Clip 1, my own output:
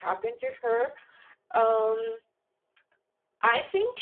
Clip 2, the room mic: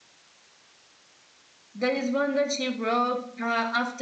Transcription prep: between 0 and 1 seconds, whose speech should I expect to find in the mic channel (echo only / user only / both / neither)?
neither